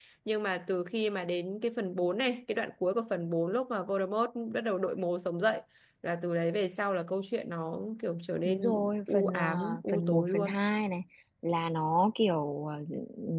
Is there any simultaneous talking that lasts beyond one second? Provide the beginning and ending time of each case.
8.4-10.6

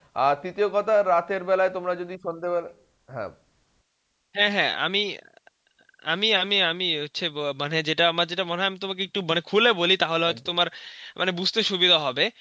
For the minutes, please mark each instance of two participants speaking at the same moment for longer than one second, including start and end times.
none

